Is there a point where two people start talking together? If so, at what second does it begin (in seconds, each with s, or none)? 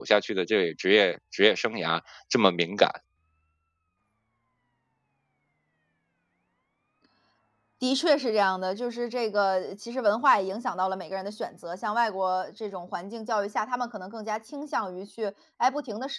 none